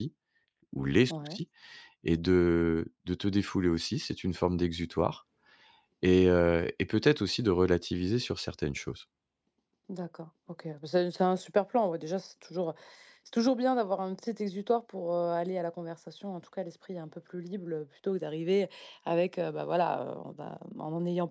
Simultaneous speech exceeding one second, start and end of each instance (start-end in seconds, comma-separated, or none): none